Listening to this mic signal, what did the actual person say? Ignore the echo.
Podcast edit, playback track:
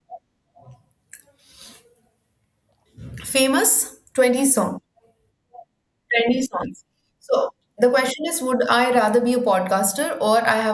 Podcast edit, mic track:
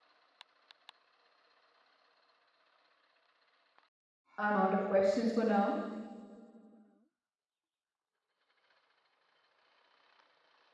I'm out of questions for now.

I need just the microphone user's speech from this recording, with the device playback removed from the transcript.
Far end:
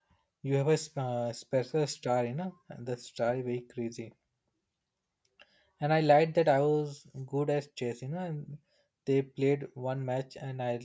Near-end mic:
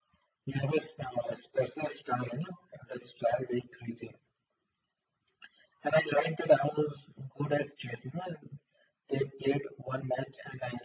none

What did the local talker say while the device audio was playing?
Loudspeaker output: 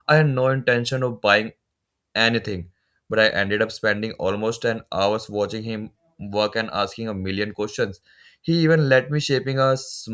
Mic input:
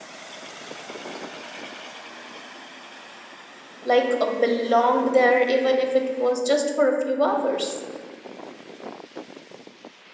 like uh, belonged there, even if it was just for a few hours.

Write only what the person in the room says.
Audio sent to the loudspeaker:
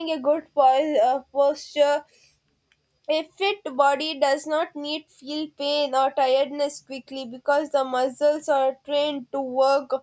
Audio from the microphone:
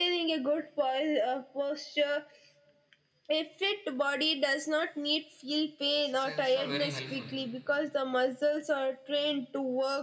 exercises are very helpful.

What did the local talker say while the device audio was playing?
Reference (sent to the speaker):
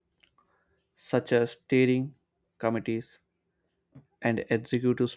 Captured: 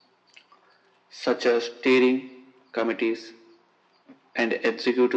none

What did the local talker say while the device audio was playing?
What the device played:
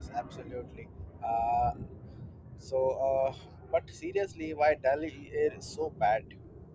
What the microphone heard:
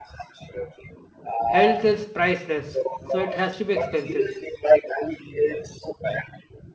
health is priceless, so it has to be expensive.

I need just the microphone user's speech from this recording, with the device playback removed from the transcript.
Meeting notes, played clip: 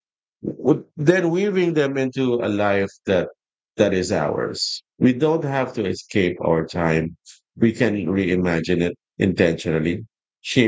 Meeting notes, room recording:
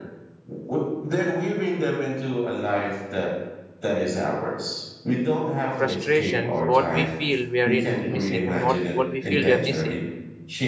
frustrations, what we feel we are in missing. I mean, what, what we feel we are missing.

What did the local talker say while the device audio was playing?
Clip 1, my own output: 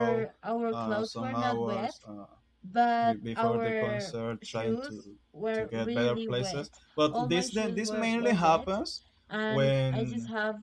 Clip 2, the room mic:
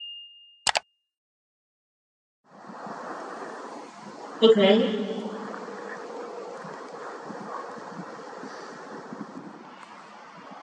Okay.

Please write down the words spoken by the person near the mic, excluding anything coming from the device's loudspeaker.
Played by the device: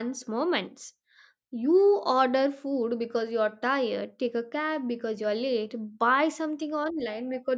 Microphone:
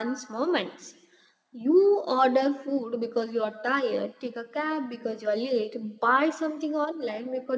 none

